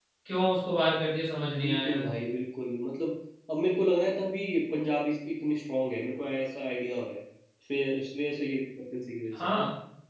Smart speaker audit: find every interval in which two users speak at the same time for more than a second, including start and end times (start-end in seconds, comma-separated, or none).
none